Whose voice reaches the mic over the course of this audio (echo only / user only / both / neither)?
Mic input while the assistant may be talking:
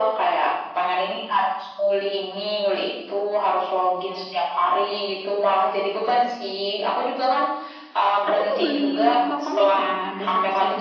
both